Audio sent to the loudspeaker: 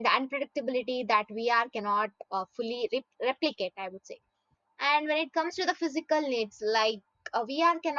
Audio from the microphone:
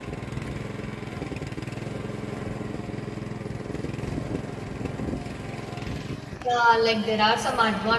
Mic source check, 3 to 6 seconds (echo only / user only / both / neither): neither